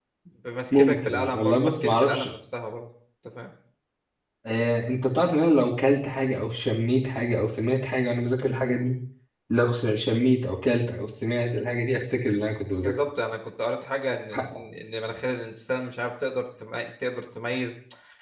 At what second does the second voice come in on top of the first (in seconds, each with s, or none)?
0.8 s